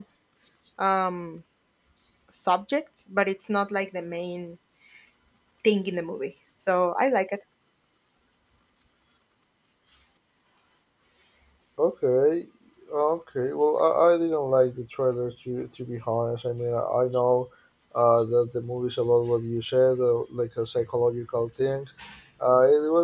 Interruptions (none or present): none